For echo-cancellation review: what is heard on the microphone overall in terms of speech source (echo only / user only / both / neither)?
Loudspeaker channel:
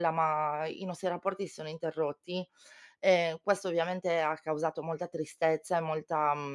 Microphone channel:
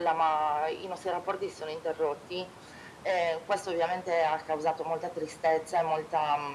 echo only